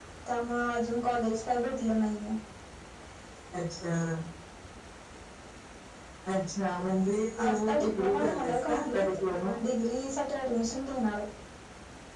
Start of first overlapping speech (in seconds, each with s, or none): 7.4 s